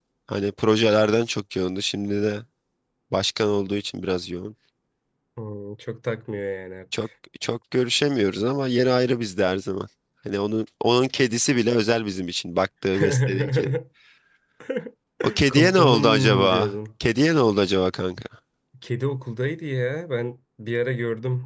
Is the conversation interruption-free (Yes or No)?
No